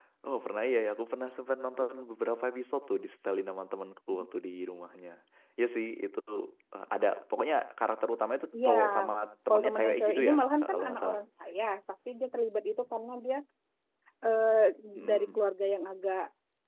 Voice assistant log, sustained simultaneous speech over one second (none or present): present